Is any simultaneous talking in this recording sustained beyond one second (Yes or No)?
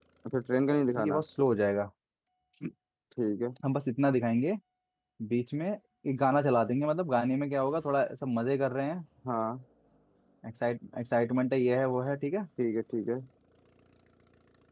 No